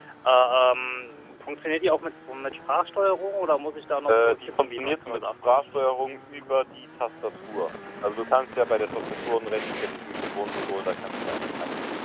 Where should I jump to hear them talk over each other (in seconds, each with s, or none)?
4.1 s